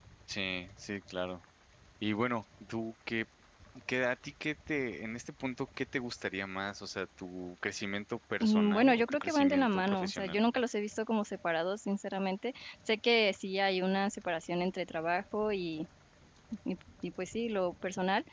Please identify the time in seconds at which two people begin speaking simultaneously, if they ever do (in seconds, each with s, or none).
8.4 s